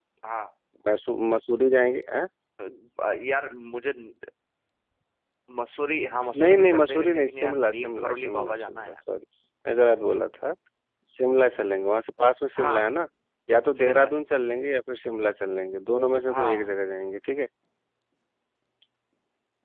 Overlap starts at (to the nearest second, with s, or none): 6 s